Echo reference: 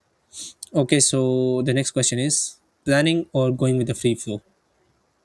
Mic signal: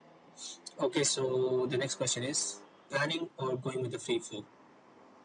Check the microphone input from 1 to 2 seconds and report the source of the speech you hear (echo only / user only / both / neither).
echo only